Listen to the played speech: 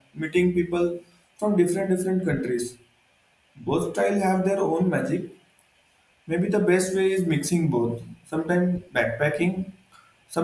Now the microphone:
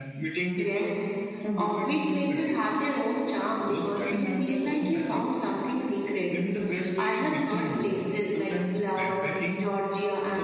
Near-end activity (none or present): present